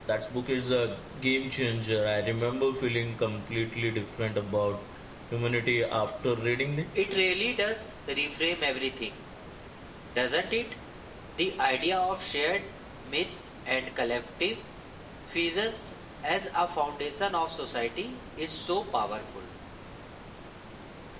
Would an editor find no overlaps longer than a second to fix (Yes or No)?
Yes